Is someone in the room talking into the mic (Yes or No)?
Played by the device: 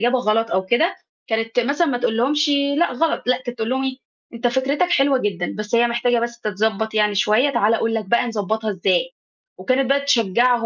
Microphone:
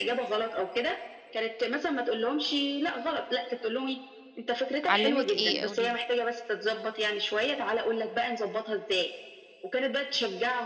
Yes